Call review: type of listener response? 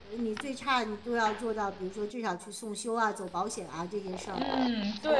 taking over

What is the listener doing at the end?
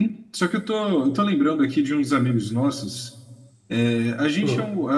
listening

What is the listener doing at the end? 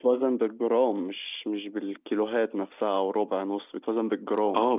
taking over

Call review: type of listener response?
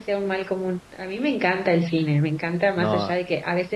listening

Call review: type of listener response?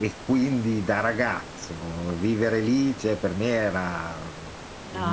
listening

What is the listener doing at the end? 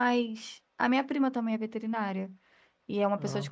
listening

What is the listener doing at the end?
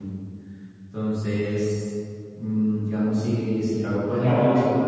taking over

